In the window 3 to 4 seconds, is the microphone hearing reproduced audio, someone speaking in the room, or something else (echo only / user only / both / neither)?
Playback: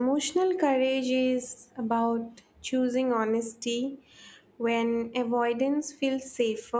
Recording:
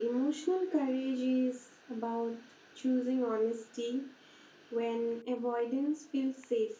echo only